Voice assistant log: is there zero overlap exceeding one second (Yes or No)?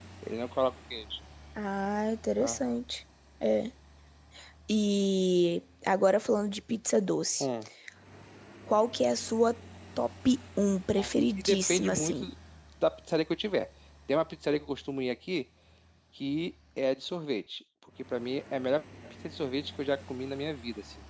No